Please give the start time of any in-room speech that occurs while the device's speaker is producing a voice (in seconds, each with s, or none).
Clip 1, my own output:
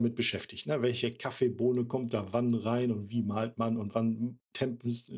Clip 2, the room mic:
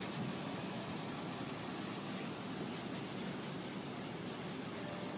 none